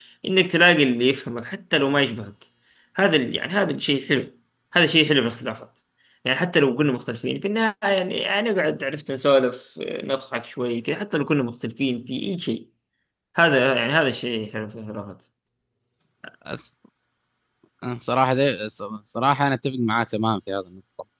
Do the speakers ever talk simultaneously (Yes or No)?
No